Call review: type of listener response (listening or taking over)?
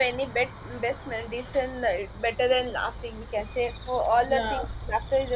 listening